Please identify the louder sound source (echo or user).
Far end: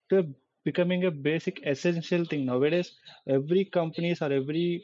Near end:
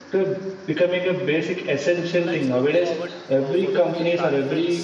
echo